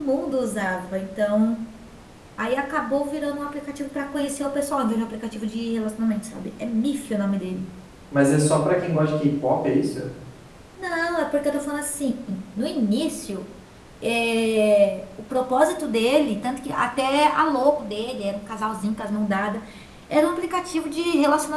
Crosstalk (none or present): none